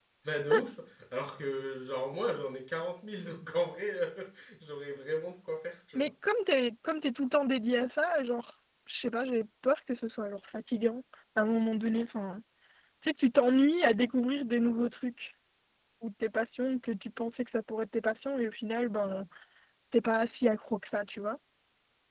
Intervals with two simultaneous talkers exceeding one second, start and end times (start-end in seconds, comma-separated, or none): none